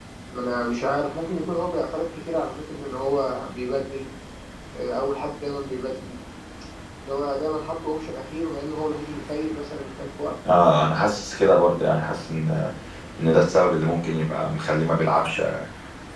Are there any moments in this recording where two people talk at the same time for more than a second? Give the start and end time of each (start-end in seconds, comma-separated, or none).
none